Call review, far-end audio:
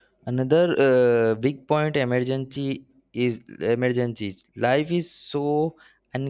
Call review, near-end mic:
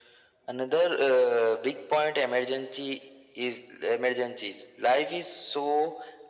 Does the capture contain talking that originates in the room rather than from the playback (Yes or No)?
No